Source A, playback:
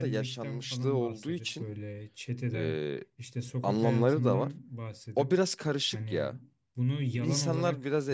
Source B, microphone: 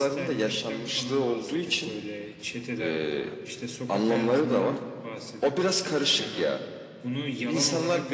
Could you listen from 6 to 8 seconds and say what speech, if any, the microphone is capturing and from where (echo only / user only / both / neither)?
echo only